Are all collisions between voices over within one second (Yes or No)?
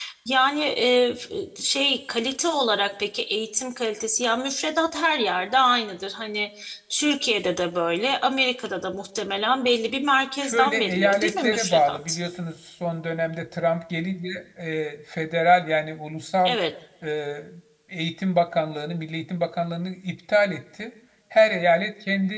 No